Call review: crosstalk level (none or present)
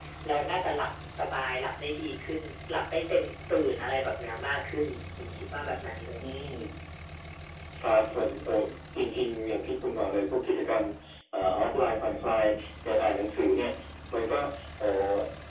none